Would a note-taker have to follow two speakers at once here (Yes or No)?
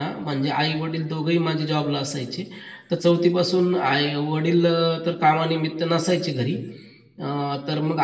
No